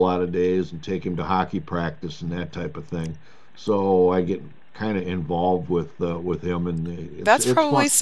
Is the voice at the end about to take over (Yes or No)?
Yes